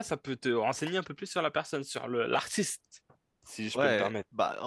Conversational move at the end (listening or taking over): taking over